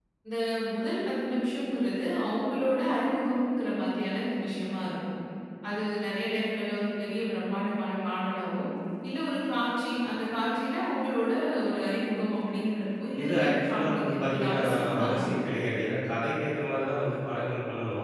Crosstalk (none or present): present